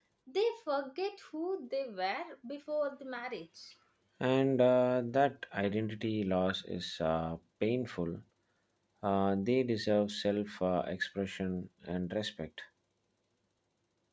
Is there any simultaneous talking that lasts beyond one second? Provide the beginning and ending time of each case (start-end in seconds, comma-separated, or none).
none